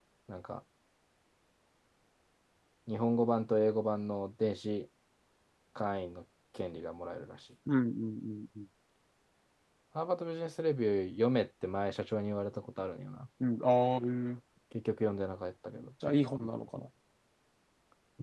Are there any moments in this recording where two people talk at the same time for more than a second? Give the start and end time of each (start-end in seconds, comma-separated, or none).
none